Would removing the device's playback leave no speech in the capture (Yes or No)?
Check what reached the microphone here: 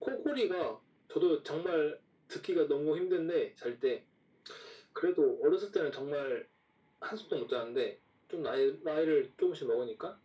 Yes